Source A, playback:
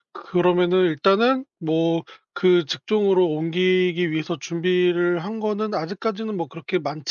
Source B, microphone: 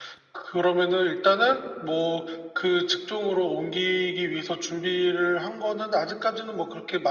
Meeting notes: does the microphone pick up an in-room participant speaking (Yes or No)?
No